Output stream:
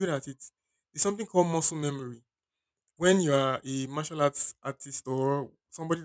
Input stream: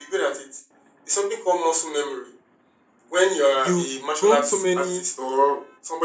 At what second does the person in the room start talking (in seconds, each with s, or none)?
3.5 s